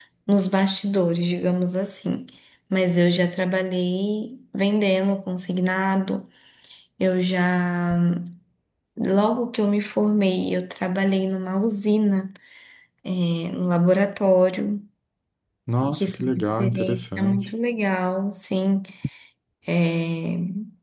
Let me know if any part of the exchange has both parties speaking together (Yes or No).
Yes